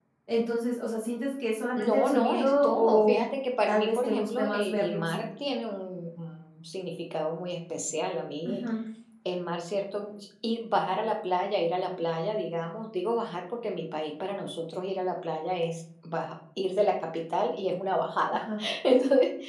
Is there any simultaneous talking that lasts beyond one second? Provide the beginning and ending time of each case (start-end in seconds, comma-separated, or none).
1.8-3.2, 3.7-5.3